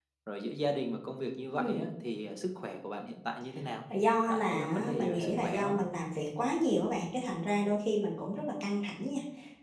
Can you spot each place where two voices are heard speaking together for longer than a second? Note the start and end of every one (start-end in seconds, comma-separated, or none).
4.3-5.8